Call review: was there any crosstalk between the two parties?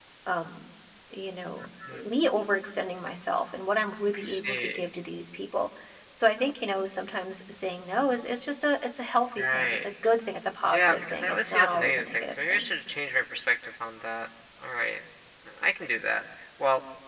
Yes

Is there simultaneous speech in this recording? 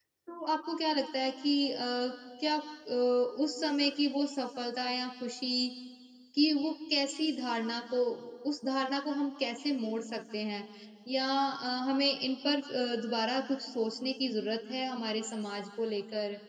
No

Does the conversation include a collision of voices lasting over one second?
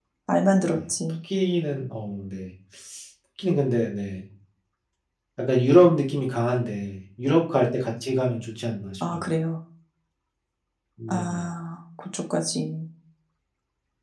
No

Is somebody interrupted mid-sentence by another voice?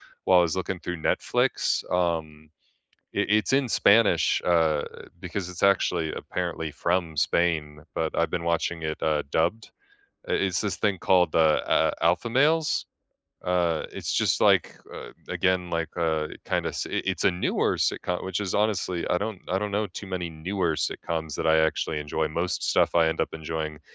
No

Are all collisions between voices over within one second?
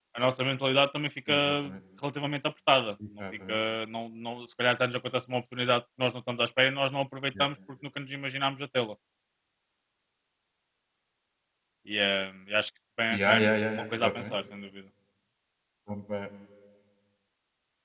No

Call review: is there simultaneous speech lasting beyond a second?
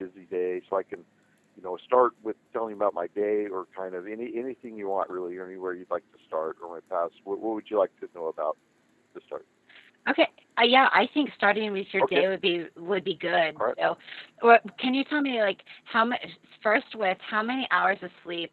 No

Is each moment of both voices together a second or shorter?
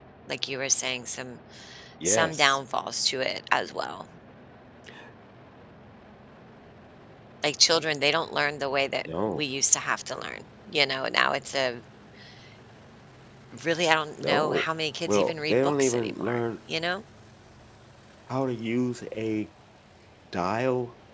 No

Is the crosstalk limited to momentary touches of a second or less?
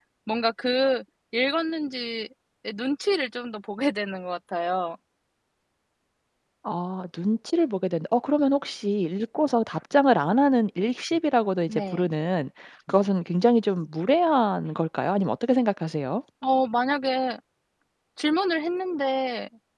Yes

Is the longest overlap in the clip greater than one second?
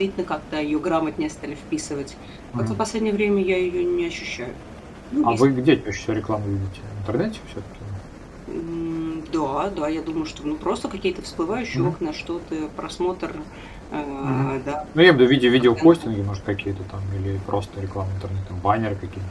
No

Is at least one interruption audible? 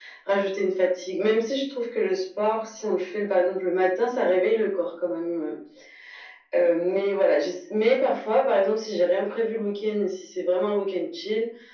No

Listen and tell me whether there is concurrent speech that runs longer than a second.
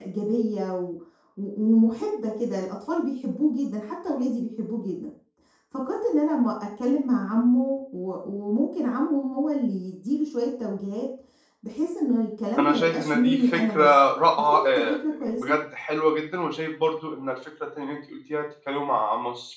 Yes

